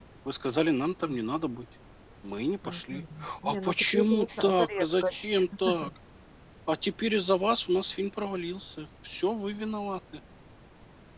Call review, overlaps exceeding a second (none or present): present